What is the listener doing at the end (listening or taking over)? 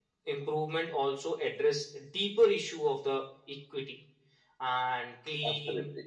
listening